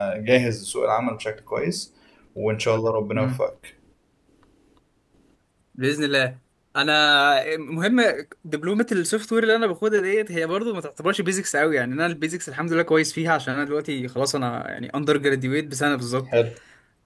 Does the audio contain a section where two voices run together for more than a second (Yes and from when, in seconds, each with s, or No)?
No